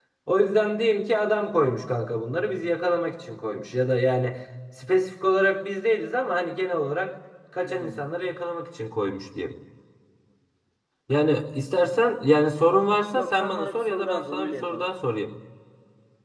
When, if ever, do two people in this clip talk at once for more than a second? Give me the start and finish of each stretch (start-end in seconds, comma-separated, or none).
13.2-14.9